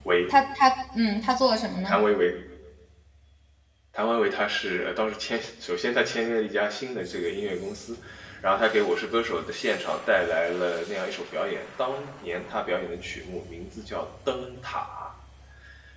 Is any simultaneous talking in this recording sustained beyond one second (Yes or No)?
No